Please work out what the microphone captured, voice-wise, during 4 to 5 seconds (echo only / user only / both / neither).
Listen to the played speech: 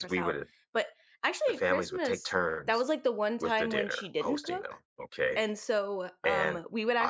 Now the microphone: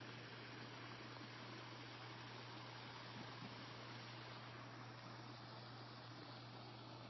neither